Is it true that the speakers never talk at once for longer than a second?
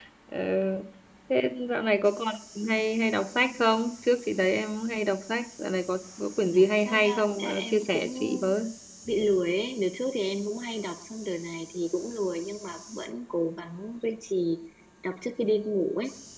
No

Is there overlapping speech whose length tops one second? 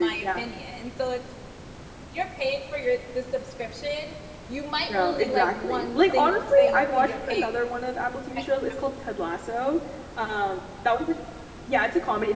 Yes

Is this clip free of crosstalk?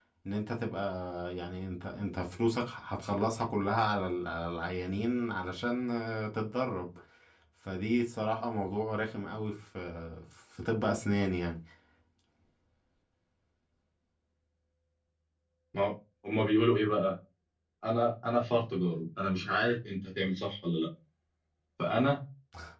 Yes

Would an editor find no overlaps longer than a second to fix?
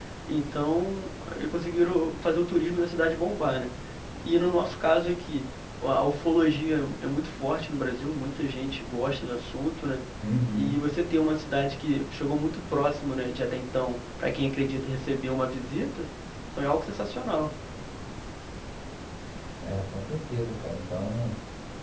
Yes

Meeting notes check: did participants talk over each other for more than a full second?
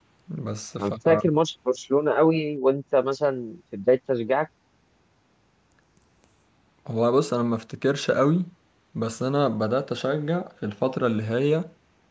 No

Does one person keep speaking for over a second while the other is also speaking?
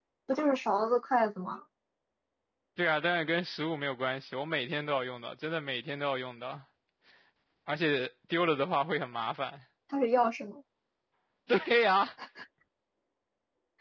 No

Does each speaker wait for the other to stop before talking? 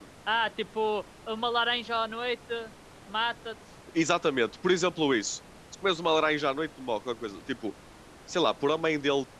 Yes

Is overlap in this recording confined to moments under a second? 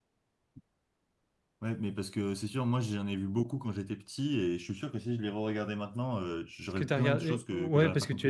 No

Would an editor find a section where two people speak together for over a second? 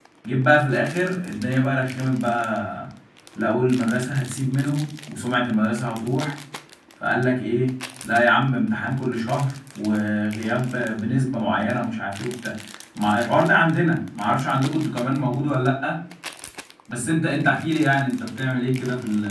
No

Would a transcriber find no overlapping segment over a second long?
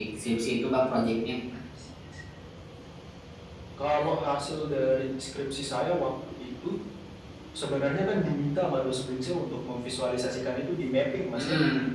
Yes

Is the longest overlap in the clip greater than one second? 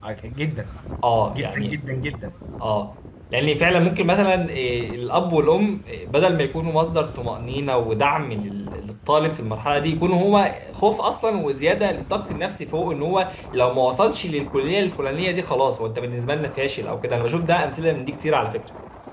No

